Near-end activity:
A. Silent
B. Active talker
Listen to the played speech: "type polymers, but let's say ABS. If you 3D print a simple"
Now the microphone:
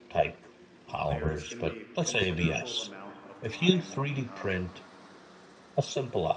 B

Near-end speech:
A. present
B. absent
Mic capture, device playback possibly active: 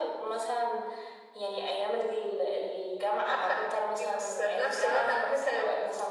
B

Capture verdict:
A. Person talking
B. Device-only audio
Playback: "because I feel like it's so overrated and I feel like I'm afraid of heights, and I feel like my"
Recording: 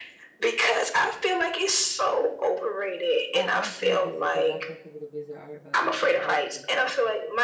A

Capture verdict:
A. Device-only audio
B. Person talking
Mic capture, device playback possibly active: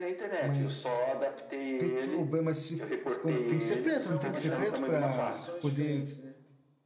B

